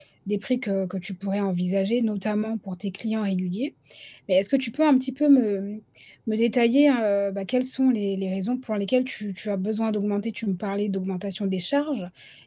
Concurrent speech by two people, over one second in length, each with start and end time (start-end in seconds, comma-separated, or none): none